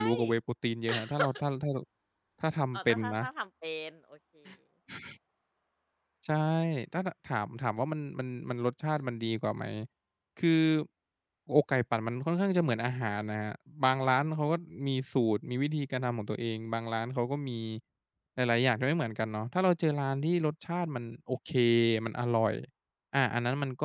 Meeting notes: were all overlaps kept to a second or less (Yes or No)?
Yes